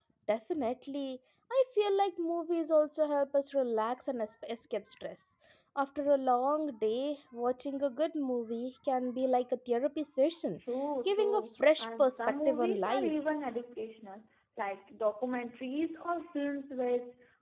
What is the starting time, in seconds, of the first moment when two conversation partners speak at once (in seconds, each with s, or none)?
11.1 s